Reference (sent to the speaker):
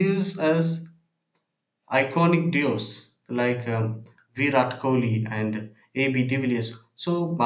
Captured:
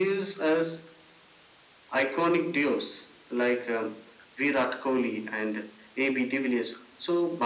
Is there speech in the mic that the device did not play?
No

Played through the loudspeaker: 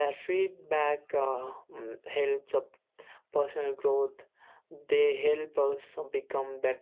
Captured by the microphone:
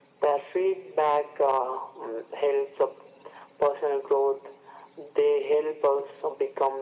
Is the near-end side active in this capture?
No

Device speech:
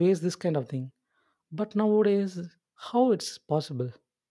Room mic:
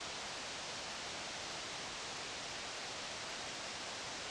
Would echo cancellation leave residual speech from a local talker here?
No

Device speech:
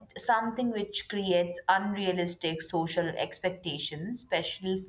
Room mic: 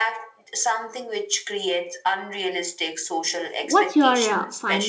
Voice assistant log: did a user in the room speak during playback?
Yes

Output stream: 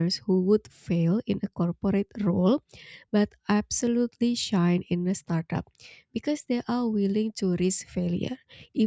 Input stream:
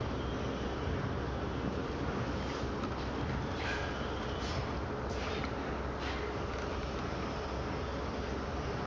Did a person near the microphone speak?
No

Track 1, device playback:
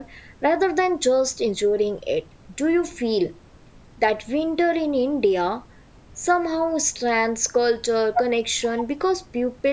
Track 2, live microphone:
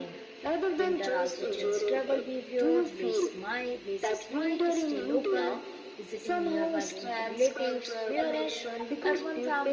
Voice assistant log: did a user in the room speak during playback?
Yes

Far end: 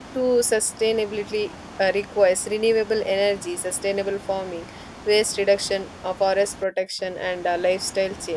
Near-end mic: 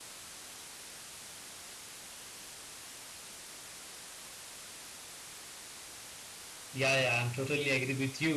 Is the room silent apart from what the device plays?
No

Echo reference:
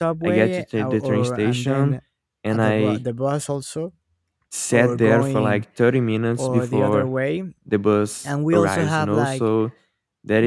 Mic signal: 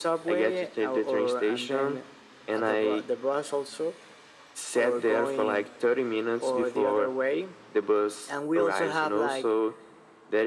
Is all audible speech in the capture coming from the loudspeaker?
Yes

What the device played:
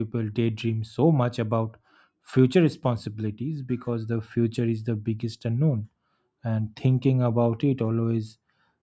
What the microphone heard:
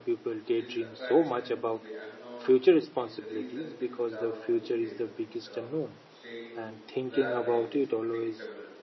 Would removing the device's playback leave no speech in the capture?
No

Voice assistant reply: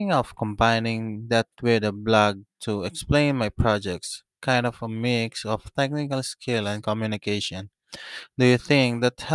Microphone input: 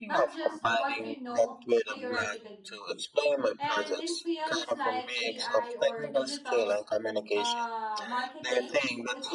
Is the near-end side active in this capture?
Yes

